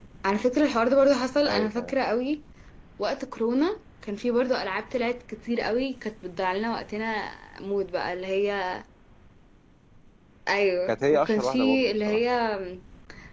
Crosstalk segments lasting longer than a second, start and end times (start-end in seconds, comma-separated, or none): 10.9-12.2